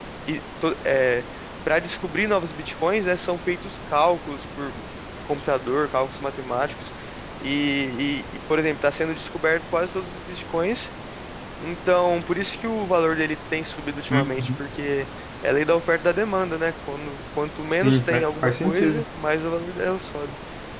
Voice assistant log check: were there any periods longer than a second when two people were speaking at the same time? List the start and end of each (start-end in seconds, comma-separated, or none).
17.8-19.0